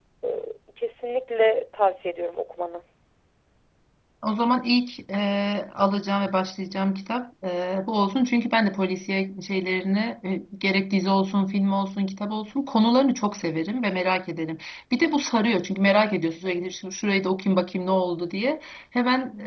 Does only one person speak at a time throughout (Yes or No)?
Yes